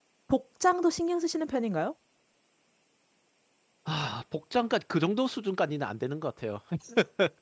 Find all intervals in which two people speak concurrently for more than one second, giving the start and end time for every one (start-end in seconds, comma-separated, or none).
none